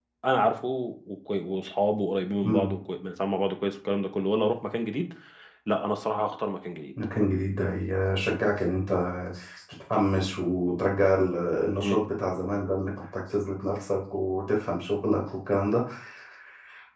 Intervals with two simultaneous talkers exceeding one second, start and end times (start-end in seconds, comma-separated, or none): none